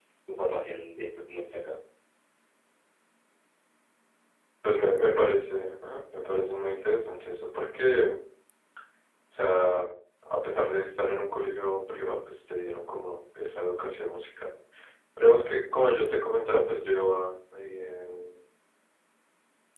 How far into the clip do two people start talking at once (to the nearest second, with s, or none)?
none